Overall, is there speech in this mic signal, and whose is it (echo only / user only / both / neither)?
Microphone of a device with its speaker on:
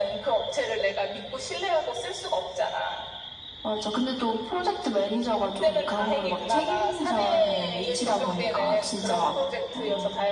echo only